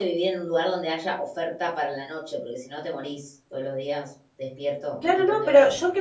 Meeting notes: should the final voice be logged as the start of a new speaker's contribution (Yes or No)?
Yes